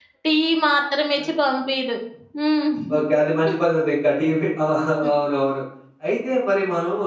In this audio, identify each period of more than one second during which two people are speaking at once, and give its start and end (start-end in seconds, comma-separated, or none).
none